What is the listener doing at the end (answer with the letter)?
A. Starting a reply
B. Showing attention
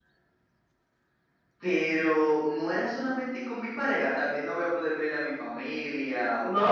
A